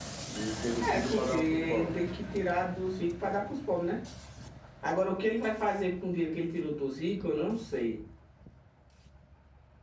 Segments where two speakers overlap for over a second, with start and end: 0.8-2.0

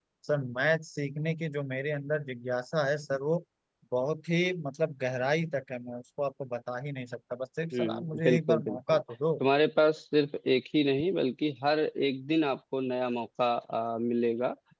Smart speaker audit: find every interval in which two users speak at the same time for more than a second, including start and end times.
7.7-9.0

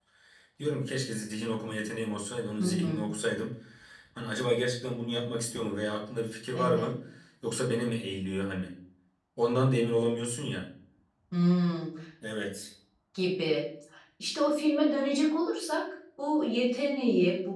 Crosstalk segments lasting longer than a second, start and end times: none

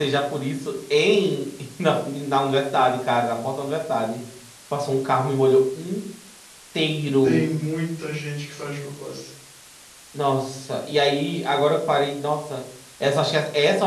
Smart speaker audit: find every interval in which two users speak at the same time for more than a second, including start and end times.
none

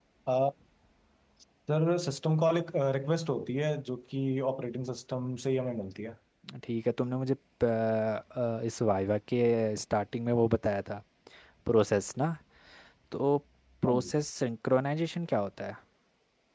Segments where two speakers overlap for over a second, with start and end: none

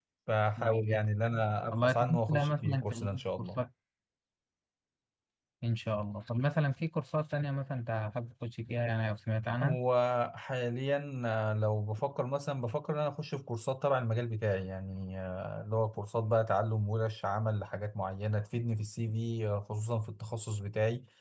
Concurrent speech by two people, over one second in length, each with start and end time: 1.7-3.6

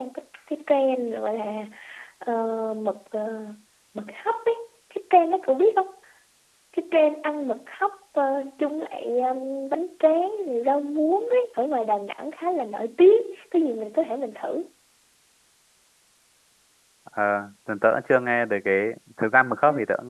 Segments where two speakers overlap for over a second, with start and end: none

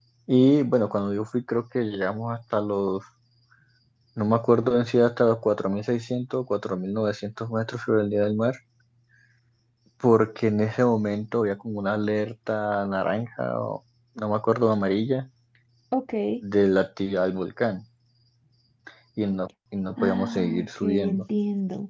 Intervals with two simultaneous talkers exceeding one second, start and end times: 20.0-21.2

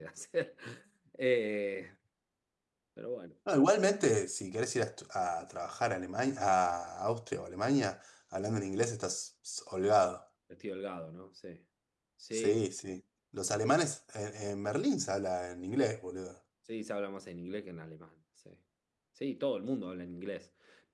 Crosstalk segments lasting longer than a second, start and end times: none

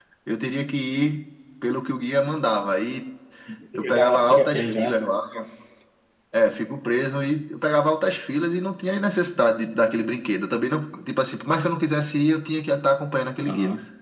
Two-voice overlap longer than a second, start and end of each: 3.8-5.0

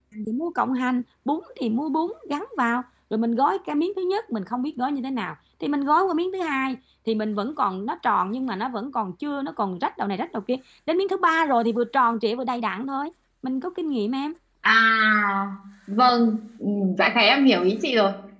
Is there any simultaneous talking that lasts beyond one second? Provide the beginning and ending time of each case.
none

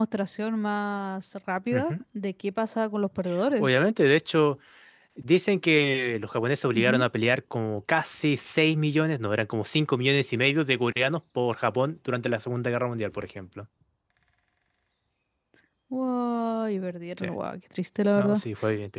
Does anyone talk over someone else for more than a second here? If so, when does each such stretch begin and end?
none

